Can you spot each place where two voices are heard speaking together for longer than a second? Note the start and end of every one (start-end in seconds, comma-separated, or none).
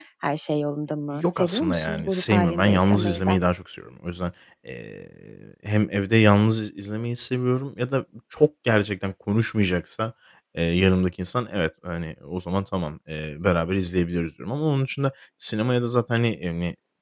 1.1-3.4